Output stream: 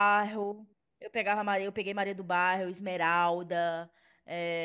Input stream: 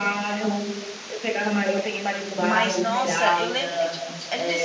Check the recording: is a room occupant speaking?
Yes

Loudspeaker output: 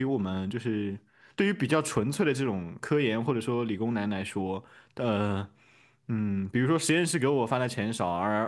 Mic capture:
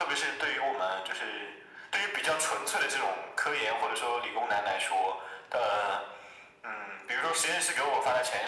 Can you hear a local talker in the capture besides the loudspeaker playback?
No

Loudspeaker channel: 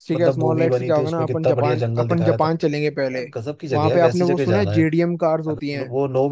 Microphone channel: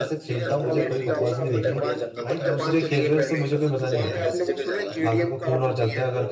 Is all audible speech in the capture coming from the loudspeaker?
No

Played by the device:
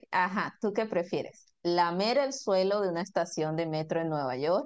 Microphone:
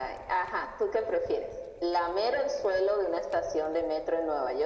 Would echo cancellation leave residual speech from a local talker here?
No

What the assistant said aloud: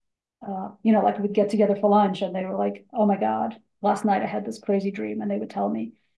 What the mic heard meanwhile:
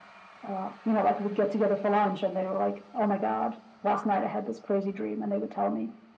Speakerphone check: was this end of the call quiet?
Yes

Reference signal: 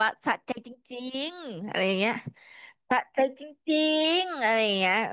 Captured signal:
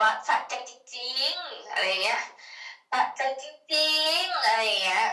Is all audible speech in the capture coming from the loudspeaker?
Yes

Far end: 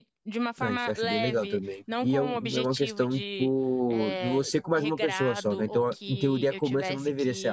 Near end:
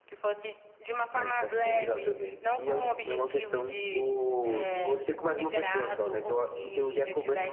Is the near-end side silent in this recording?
Yes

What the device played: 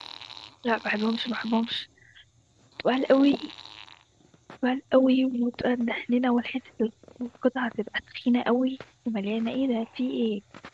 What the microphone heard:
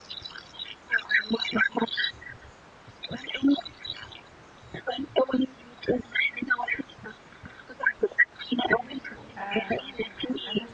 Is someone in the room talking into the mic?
Yes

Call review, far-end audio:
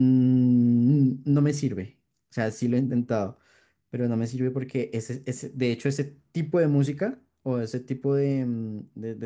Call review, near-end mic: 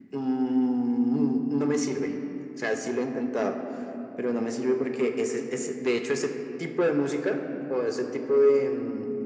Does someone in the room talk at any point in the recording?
No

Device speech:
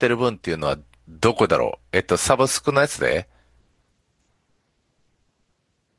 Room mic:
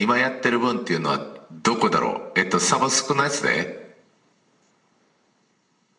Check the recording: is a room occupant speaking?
No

